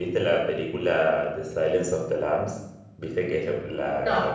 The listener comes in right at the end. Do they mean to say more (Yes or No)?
No